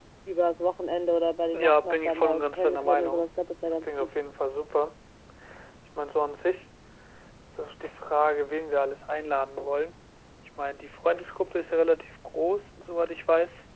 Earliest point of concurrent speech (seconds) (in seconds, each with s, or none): 1.5 s